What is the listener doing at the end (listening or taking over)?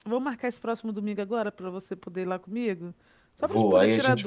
taking over